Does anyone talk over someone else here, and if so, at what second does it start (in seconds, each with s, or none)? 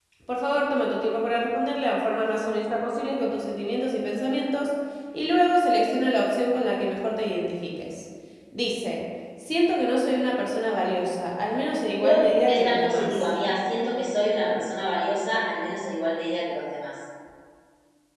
12.0 s